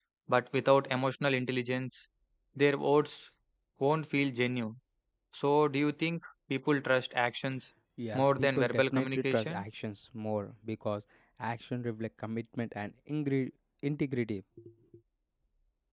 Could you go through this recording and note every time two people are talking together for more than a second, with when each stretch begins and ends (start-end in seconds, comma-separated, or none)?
8.1-9.6